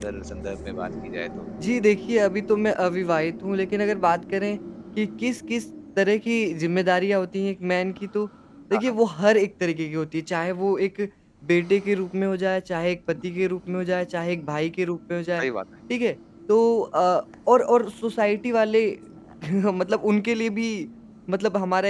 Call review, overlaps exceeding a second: none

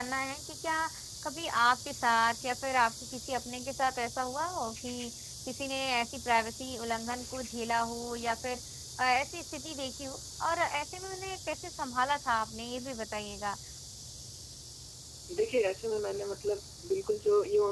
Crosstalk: none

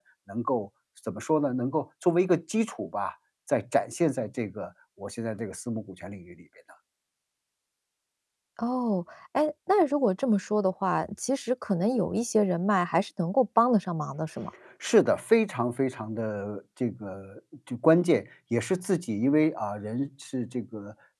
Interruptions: none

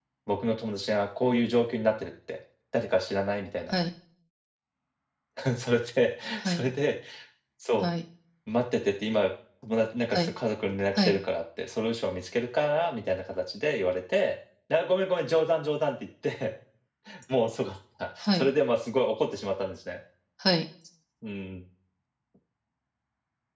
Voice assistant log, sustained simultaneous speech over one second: none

